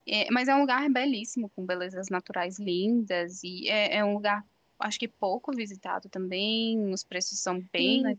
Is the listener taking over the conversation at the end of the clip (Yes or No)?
Yes